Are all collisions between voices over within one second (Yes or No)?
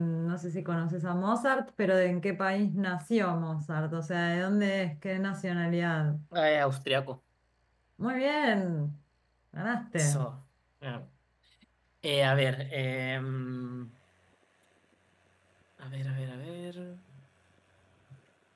Yes